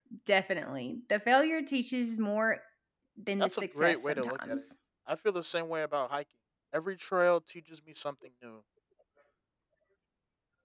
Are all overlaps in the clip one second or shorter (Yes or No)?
No